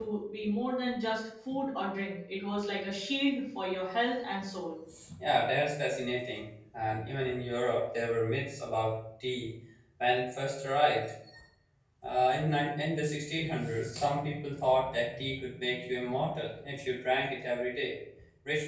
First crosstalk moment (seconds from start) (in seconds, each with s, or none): none